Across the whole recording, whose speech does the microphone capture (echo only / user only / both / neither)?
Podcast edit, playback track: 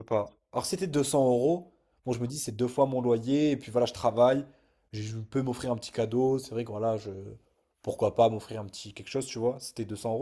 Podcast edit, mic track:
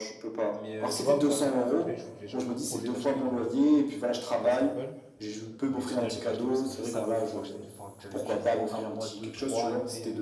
both